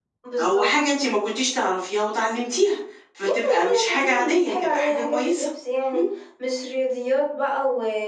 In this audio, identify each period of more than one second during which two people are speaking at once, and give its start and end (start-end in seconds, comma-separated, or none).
3.2-5.5